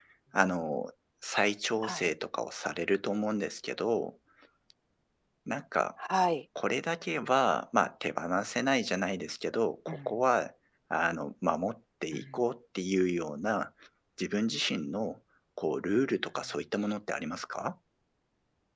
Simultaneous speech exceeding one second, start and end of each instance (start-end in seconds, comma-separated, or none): none